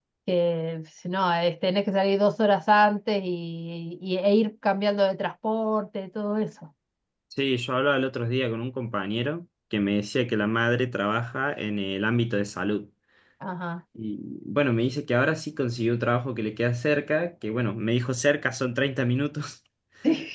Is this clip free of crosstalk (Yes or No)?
Yes